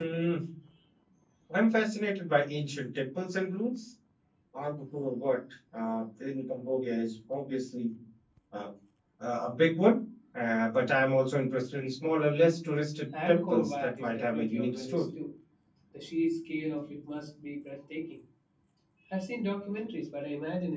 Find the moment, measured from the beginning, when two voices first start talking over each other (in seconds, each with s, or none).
13.1 s